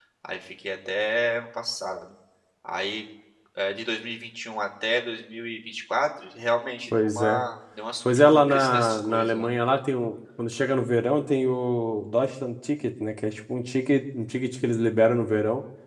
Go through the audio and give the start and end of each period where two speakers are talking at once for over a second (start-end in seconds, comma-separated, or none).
8.1-9.5